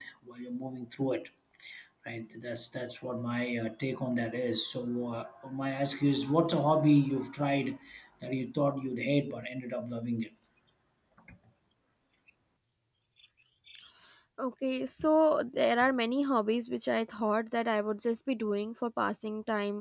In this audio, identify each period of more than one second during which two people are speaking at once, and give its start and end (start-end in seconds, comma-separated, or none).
none